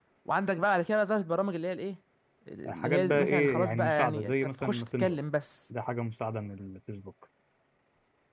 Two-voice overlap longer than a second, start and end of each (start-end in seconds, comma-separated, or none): 2.7-5.2